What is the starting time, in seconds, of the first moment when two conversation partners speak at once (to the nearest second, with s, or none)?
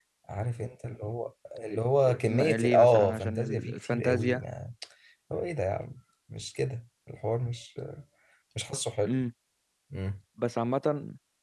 2 s